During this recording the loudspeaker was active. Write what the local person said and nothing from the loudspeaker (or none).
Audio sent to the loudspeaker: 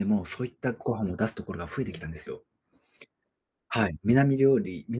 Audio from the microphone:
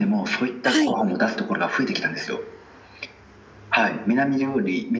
はい。